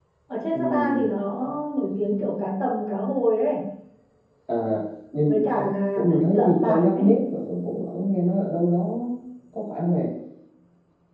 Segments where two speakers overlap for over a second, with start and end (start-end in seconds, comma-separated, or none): 5.3-7.2